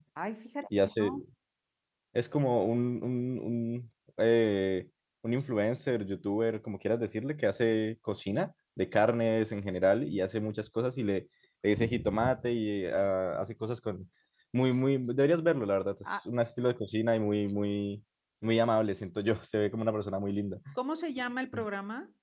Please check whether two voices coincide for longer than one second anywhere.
No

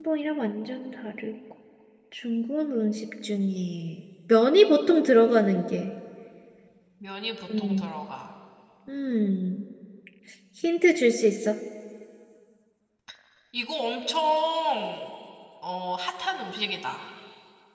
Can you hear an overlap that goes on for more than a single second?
No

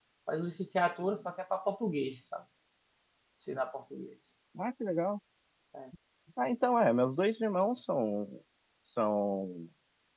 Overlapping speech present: No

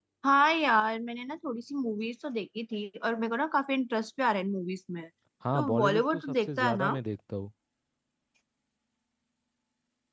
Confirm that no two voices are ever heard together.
No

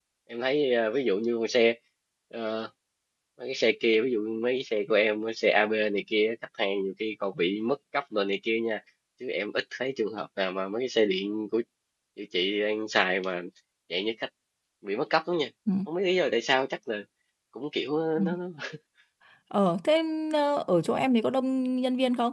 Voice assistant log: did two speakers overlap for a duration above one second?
No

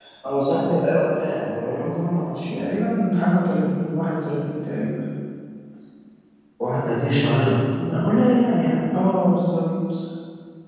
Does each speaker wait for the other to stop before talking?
Yes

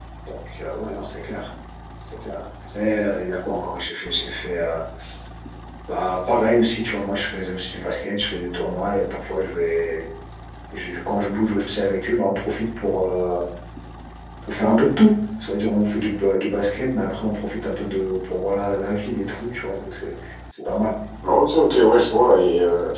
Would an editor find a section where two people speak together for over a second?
No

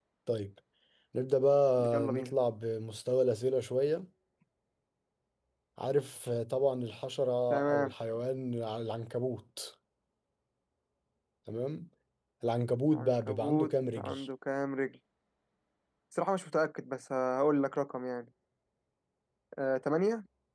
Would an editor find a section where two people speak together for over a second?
Yes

